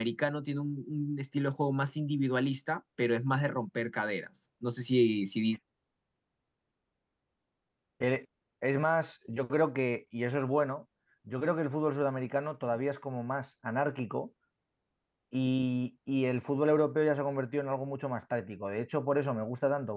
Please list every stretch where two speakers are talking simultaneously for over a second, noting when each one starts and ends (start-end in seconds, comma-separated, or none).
none